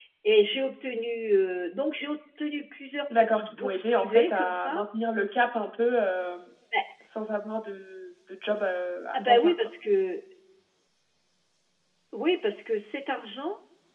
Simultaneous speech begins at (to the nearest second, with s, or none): 3 s